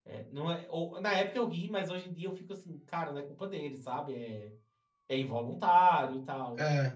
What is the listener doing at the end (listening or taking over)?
listening